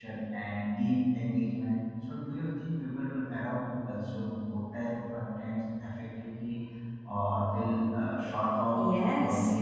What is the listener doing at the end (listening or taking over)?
taking over